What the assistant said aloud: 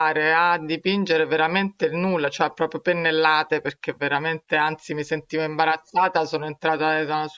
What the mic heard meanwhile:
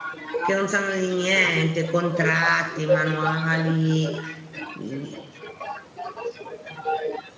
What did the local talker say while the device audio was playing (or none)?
che non sanno di niente, contratti, manuali, mm,